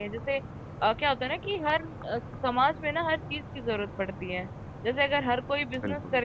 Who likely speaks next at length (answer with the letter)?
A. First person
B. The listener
A